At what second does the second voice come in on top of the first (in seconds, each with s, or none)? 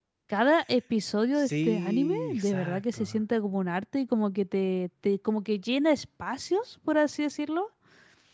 1.4 s